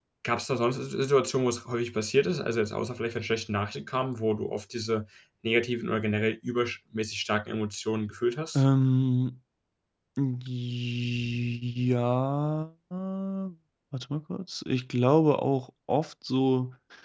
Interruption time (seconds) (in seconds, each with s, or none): none